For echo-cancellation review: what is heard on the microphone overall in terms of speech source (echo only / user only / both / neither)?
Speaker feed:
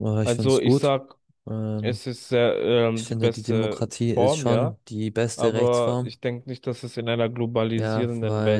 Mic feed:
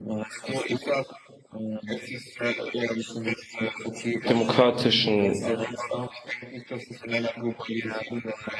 both